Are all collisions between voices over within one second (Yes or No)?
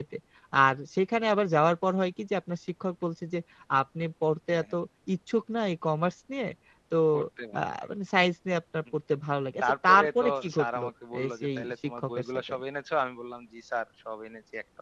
No